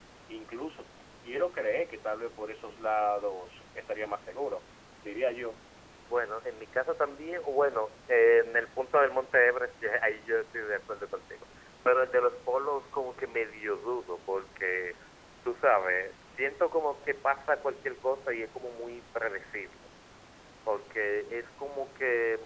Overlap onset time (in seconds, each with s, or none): none